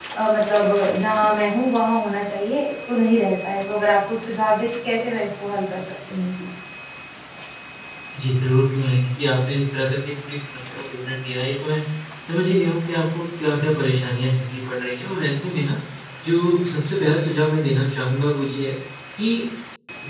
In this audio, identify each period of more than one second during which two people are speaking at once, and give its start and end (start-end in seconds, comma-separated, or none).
none